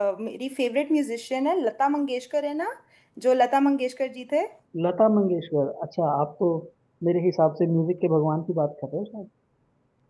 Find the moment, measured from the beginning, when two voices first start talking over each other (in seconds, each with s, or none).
none